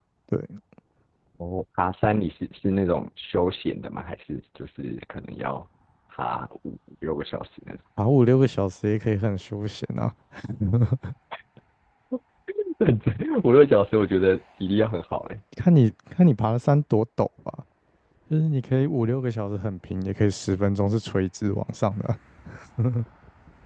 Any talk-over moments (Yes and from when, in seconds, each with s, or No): No